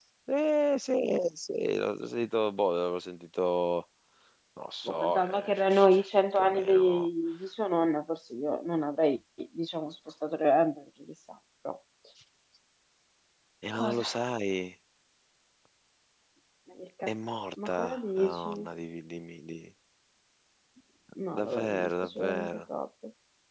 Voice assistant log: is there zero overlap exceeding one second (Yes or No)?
No